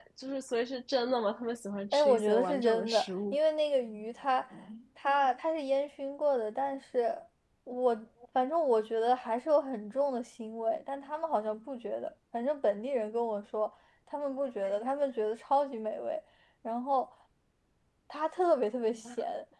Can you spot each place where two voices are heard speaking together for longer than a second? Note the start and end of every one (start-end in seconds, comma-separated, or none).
1.9-3.4